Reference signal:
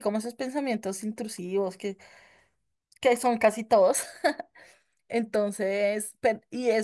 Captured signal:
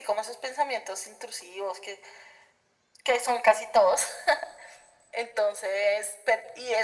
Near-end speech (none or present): none